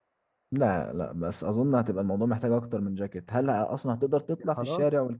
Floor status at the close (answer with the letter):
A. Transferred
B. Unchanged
A